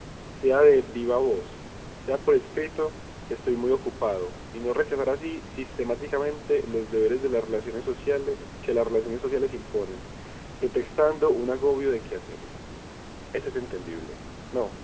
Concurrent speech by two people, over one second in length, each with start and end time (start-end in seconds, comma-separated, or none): none